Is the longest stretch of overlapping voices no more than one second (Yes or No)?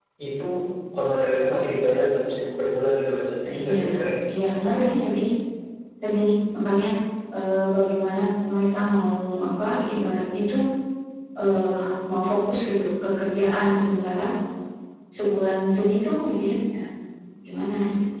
Yes